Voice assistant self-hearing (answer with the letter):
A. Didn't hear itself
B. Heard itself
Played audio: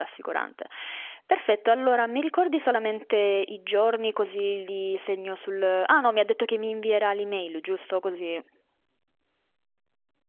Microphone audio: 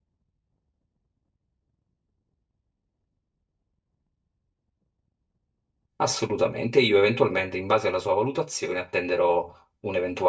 A